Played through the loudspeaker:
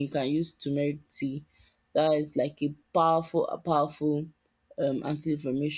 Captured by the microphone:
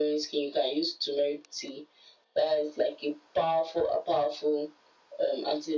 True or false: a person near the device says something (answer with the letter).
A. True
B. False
B